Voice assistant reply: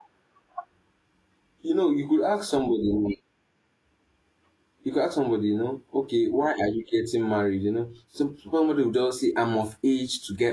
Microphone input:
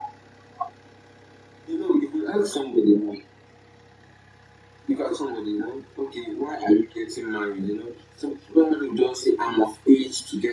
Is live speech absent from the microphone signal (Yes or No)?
Yes